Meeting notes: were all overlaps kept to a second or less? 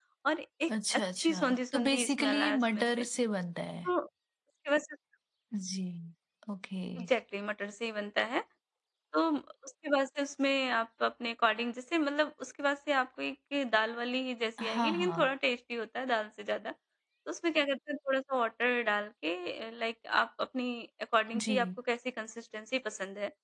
No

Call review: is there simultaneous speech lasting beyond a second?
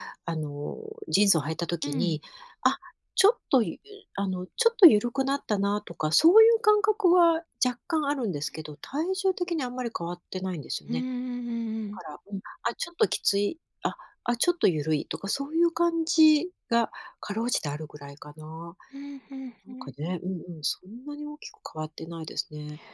No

